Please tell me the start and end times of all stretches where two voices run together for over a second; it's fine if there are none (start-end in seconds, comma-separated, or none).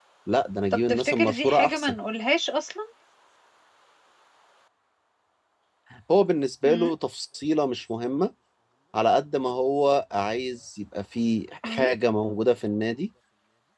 0.7-2.0